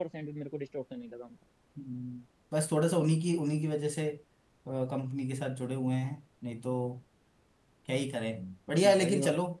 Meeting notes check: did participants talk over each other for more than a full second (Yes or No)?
No